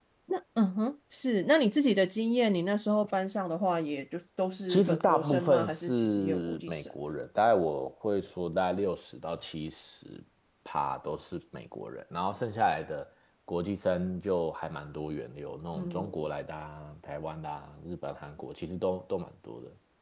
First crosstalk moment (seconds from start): 4.7 s

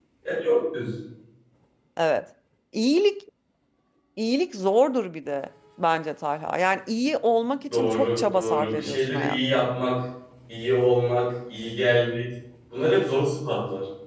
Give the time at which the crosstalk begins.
7.7 s

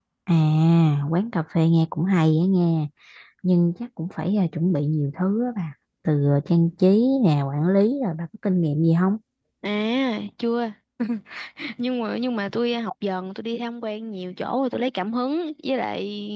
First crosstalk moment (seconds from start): none

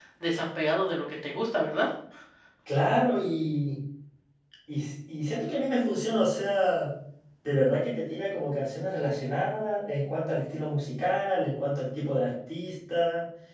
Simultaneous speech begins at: none

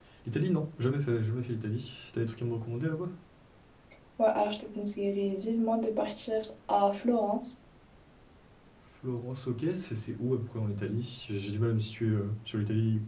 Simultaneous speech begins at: none

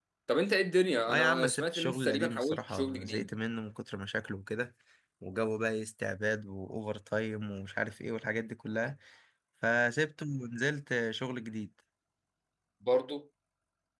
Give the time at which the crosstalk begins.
1.1 s

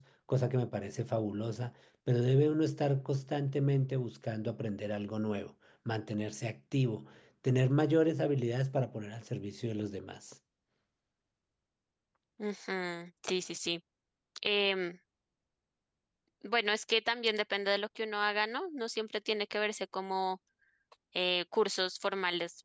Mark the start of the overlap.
none

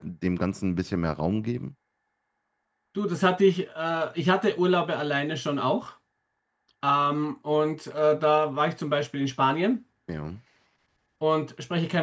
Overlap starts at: none

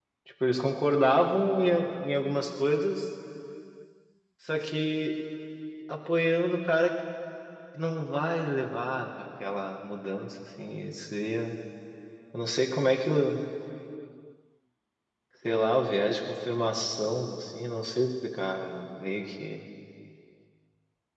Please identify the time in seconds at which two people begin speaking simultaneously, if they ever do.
none

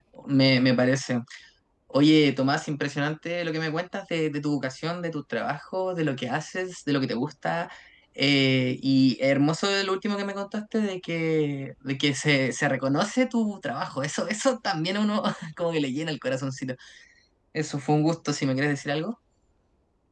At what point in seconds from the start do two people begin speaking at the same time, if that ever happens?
none

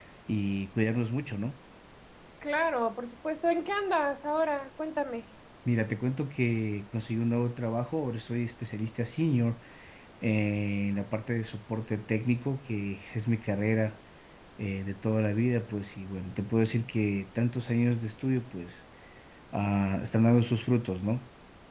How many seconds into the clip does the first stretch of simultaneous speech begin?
none

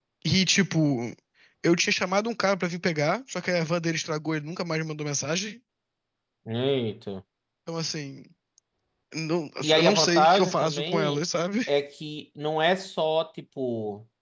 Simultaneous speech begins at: 9.6 s

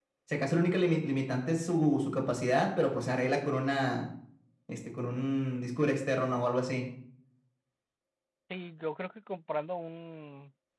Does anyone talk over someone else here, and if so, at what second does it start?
none

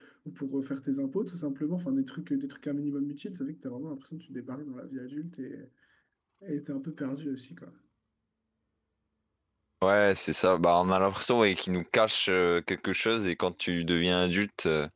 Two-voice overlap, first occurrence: none

